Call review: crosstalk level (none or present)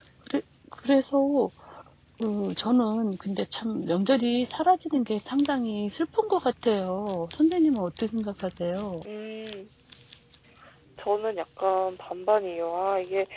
none